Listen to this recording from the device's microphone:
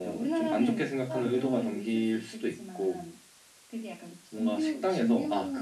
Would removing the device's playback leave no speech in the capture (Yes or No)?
Yes